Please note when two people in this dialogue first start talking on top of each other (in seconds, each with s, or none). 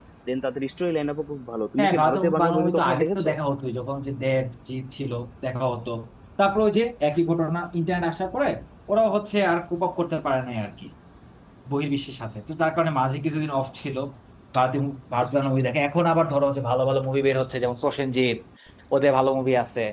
1.8 s